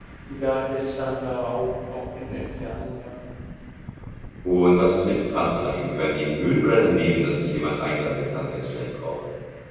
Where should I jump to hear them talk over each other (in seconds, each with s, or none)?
none